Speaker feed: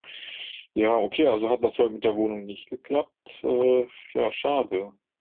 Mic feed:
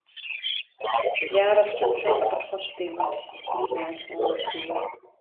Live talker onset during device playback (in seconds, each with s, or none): 1.2 s